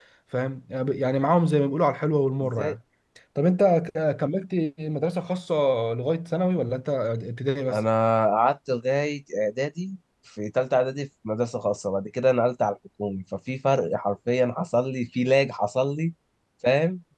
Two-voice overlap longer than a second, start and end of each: none

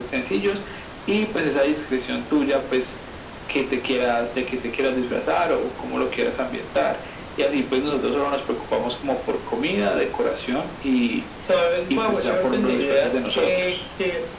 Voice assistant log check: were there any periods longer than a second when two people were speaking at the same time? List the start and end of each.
11.9-13.8

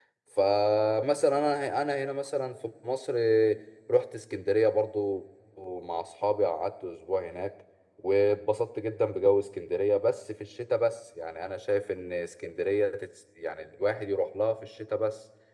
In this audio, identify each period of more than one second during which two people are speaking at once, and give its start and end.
none

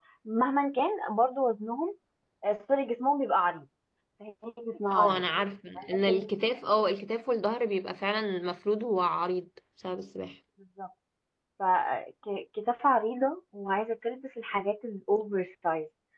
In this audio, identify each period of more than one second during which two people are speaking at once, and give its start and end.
none

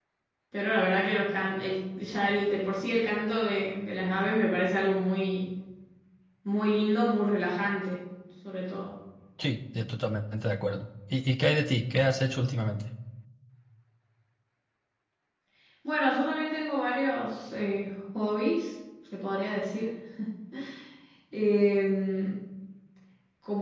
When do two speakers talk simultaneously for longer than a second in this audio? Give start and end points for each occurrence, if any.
none

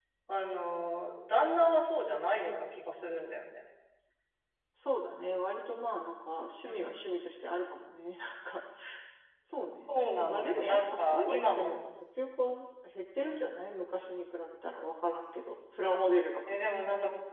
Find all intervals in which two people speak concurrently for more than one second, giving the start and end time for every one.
9.9-11.7

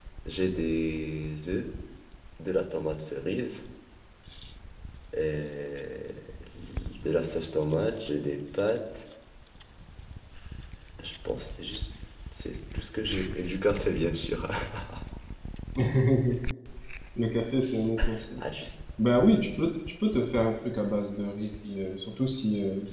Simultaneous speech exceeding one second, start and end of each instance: none

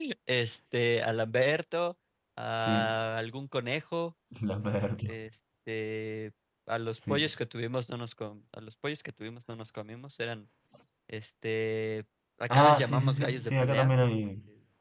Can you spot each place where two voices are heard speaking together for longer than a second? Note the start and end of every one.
12.5-13.9

